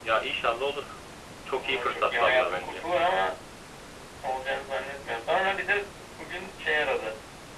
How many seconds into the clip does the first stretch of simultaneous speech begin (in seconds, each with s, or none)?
1.5 s